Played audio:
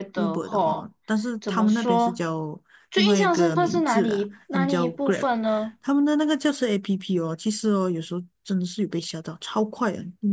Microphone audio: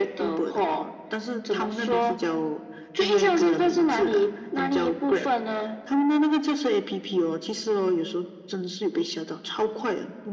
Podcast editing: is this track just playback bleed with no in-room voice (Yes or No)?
Yes